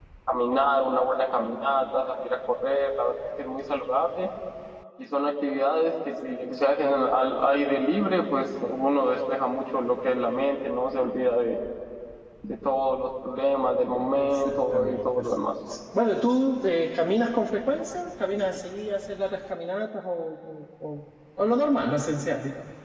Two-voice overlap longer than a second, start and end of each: 14.2-15.5

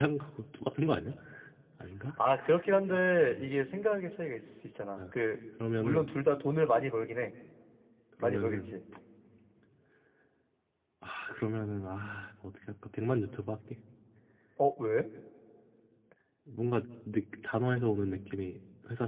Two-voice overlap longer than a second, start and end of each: none

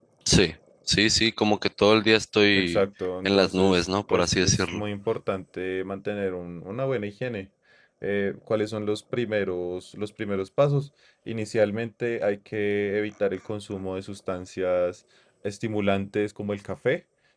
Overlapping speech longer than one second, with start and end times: 3.2-4.8

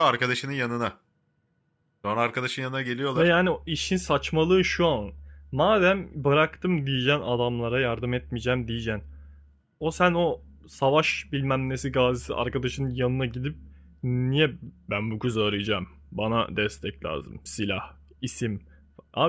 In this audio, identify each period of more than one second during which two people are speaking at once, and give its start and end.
none

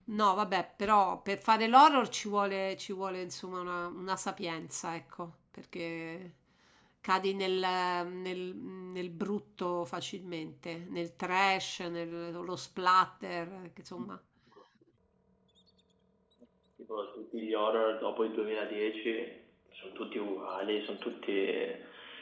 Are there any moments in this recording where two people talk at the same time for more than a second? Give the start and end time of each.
none

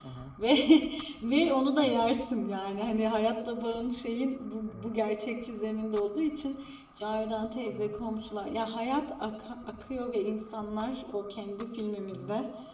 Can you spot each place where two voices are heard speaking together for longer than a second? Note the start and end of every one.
none

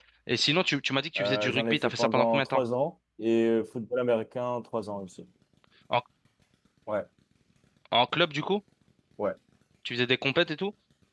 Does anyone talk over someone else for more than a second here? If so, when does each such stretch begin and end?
1.2-2.6

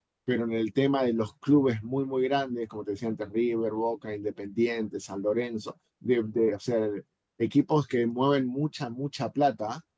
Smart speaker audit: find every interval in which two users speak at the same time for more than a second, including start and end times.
none

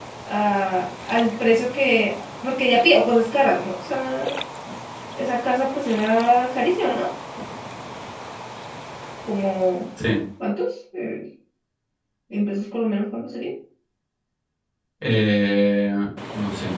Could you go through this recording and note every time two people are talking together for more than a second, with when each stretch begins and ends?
none

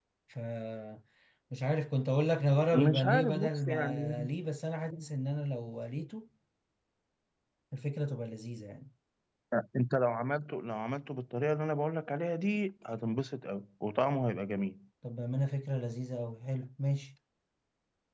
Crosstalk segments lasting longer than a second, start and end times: 2.7-4.3

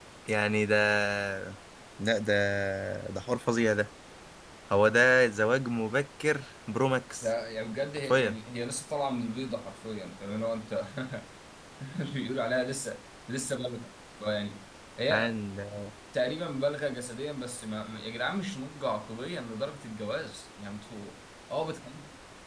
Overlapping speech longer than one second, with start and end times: none

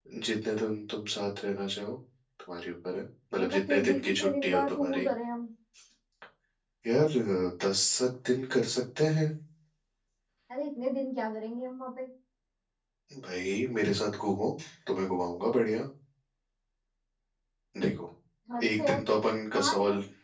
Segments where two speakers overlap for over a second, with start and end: 3.4-5.1

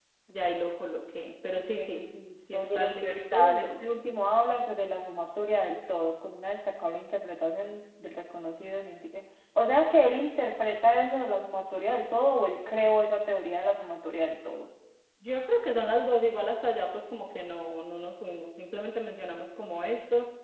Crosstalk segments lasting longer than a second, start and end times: 2.5-4.1

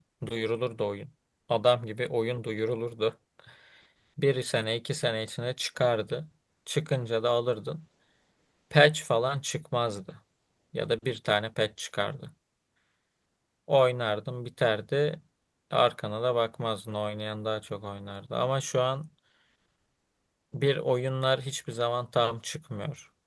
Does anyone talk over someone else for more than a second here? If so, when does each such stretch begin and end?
none

